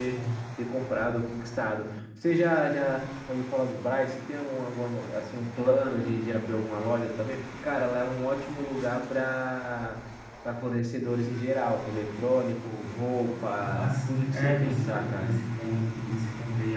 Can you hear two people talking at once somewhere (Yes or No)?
Yes